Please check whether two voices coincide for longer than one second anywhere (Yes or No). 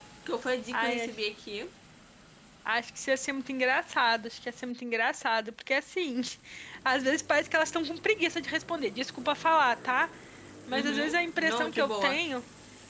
Yes